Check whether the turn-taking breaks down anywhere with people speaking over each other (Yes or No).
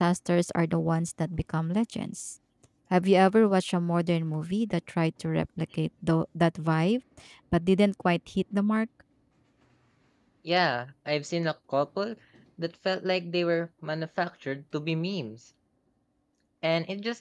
No